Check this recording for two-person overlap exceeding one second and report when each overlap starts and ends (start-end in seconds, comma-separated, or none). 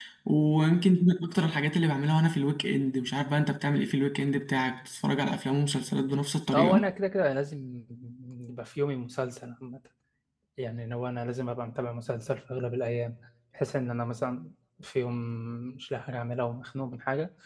none